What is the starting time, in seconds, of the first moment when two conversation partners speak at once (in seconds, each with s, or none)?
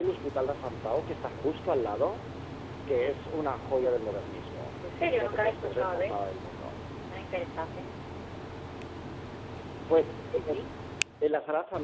5.0 s